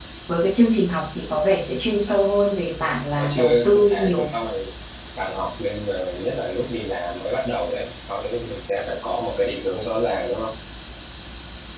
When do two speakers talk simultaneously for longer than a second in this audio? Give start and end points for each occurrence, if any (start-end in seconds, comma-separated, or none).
3.1-4.3